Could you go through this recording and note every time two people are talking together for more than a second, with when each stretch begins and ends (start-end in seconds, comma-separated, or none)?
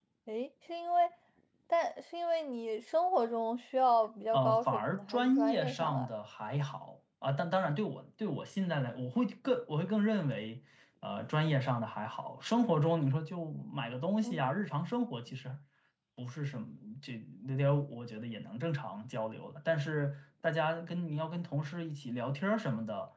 4.3-6.1